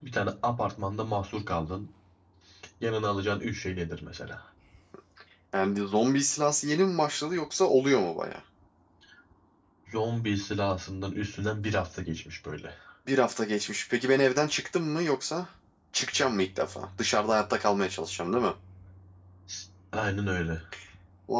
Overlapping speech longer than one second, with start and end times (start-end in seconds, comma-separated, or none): none